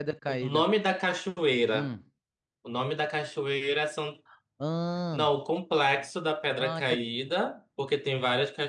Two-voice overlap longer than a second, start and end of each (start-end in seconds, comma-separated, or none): none